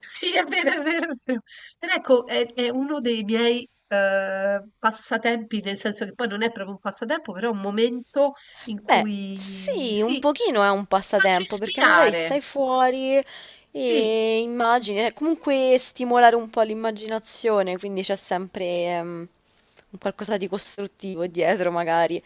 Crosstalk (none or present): present